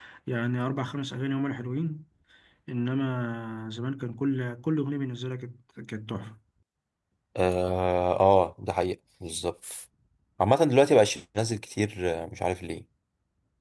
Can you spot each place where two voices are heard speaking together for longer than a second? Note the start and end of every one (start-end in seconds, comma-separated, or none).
none